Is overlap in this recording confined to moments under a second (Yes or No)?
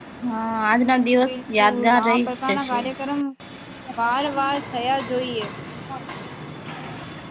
No